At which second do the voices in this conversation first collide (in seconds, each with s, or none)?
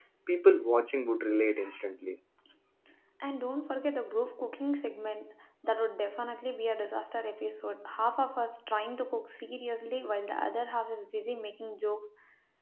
none